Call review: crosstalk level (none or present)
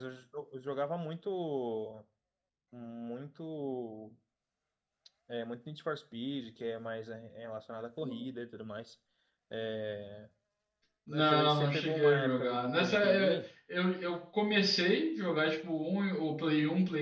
present